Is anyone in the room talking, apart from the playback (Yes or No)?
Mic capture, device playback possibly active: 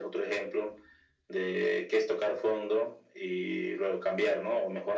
No